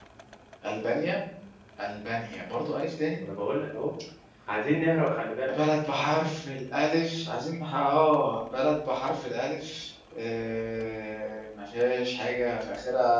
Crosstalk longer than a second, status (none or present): none